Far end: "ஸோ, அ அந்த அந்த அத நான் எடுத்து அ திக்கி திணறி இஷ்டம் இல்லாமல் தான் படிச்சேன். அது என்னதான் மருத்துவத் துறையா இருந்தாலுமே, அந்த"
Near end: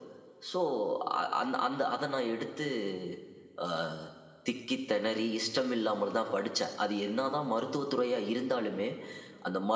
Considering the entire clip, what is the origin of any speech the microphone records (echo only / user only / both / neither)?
echo only